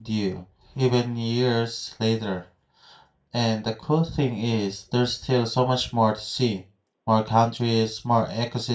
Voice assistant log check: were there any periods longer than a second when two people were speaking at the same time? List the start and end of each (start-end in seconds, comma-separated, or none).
none